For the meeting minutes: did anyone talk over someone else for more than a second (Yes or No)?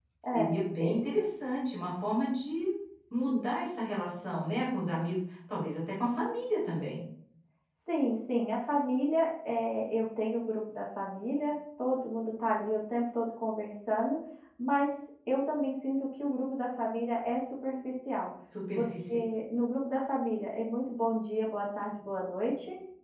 No